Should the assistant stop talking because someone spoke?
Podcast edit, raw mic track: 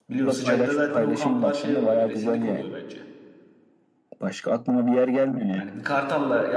Yes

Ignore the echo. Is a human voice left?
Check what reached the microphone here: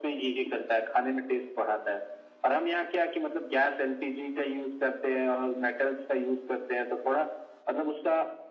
No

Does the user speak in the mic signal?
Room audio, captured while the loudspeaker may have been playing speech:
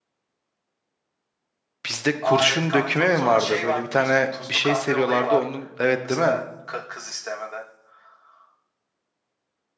Yes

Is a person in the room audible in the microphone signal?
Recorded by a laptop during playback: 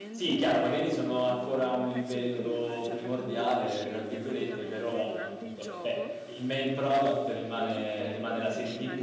Yes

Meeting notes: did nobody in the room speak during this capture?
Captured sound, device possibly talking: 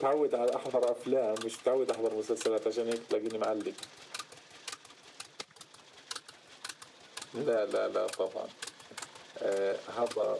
Yes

